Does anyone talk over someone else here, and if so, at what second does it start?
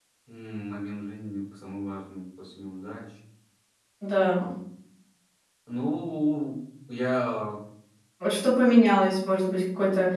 none

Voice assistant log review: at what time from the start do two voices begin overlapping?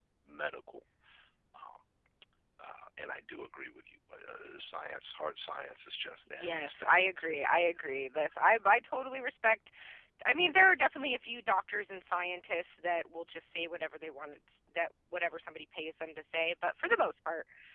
6.4 s

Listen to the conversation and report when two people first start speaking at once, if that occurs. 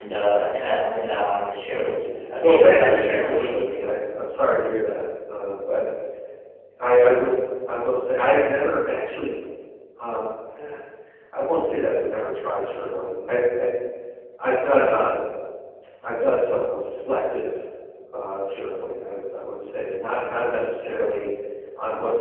2.4 s

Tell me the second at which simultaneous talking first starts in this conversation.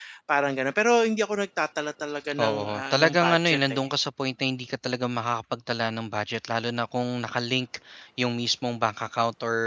2.4 s

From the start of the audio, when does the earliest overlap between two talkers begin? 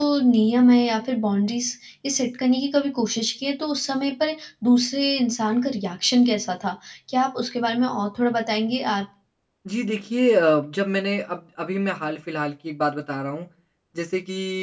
none

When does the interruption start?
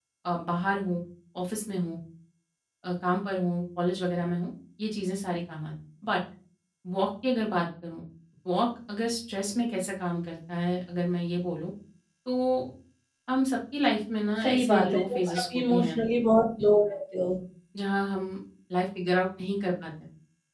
14.4 s

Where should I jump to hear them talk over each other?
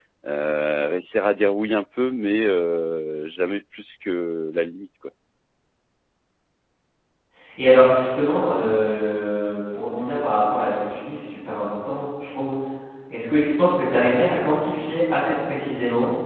none

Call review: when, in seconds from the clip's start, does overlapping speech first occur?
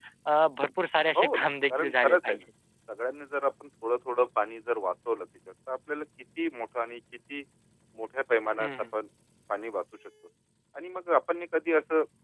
1.1 s

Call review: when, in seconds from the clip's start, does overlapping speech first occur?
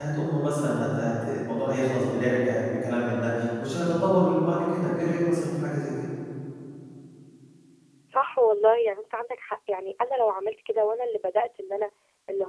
none

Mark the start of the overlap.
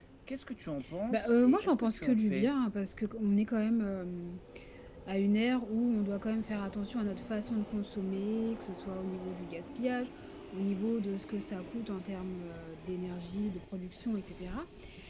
1.1 s

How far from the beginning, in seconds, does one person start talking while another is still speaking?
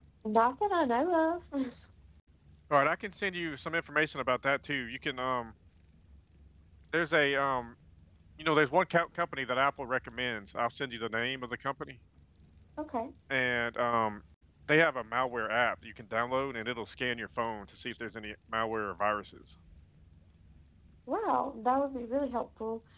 none

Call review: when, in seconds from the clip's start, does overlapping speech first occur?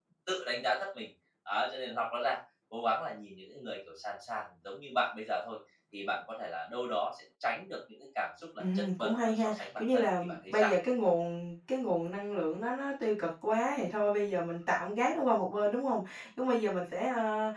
8.6 s

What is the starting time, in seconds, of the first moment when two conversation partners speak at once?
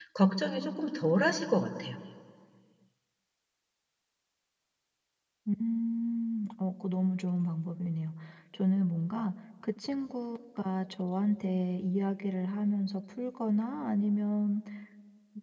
none

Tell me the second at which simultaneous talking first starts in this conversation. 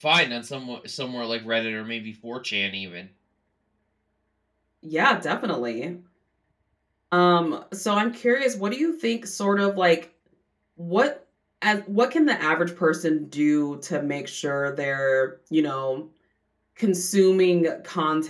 none

